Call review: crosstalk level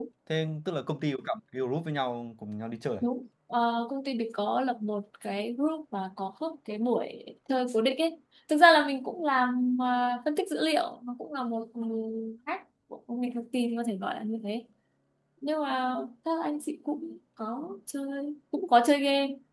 none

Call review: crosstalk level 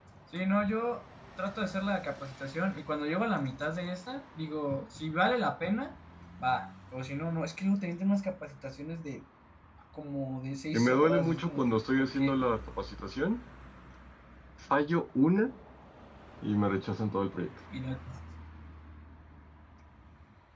present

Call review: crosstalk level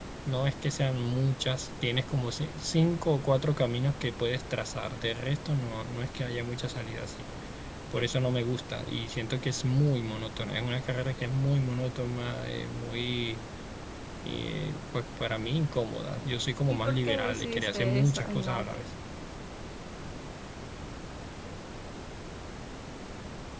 present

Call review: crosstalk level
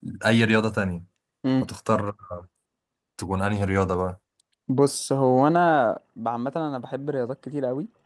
none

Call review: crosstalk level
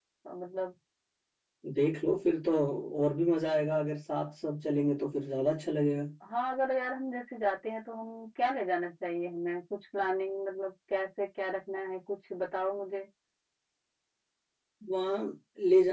none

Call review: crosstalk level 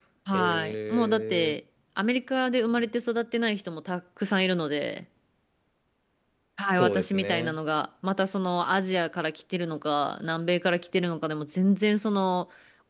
present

